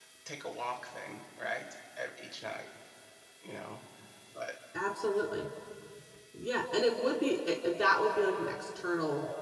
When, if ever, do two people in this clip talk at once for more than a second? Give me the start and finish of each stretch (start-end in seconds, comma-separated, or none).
none